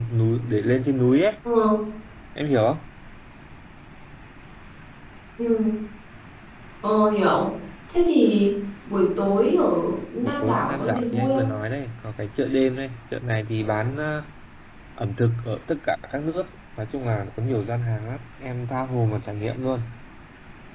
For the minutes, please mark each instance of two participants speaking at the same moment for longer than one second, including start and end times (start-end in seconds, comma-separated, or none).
10.2-11.5